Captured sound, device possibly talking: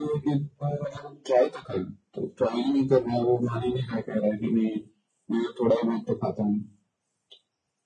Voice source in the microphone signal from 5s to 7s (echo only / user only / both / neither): echo only